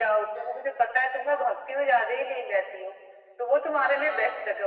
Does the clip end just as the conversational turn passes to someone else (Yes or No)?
No